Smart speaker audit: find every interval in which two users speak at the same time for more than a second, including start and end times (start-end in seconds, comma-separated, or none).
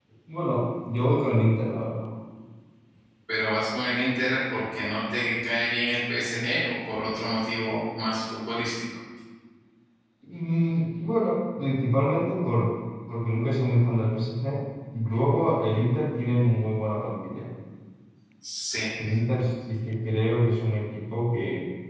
none